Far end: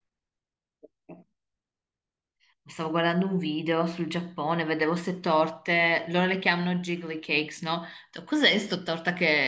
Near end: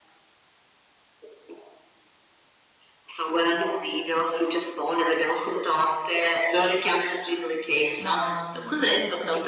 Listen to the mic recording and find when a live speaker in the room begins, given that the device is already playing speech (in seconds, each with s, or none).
8.0 s